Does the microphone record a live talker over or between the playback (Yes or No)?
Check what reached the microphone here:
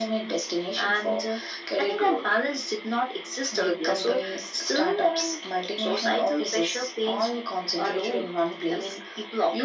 No